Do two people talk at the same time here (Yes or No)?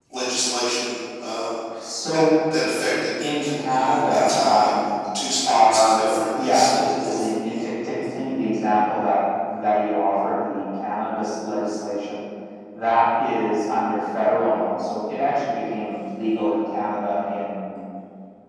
Yes